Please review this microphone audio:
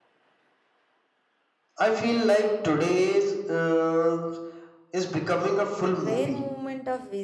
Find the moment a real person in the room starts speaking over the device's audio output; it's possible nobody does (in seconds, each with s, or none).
5.9 s